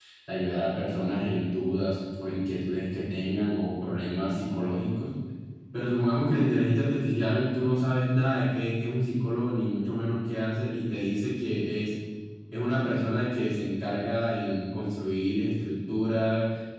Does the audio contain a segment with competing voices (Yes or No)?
No